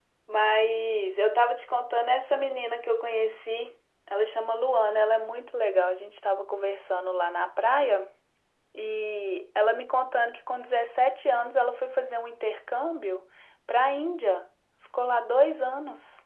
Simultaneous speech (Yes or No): No